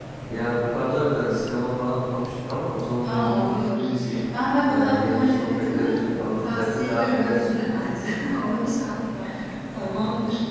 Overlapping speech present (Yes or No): Yes